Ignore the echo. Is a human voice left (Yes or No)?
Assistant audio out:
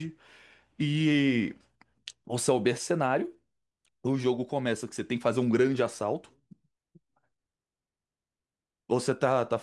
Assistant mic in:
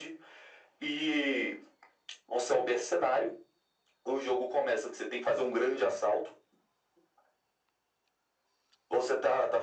No